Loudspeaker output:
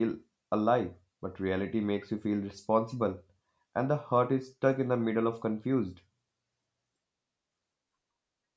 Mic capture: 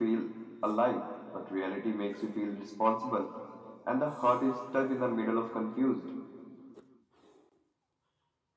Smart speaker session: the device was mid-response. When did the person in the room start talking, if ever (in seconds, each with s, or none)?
none